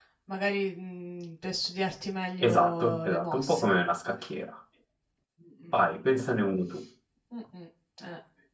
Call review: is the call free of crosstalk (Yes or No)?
No